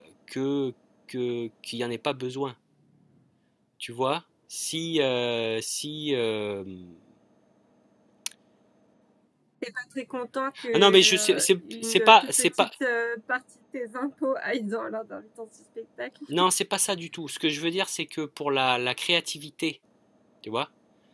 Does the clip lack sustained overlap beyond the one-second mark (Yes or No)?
No